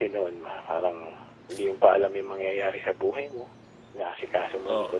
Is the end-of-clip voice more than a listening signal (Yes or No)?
No